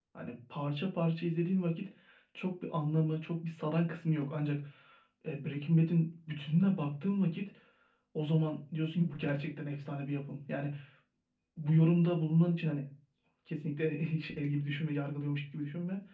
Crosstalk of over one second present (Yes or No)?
No